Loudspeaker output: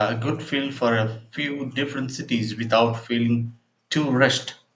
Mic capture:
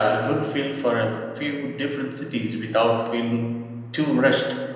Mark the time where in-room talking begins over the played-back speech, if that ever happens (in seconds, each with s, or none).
none